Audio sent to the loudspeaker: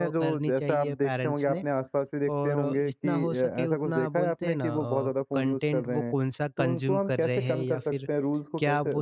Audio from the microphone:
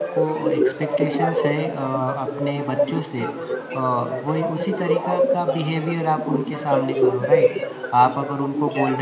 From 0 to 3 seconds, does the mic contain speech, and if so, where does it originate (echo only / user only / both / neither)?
both